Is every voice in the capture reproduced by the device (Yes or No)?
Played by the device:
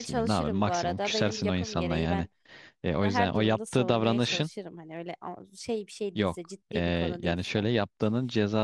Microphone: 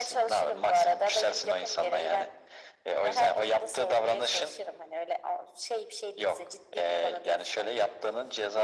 Yes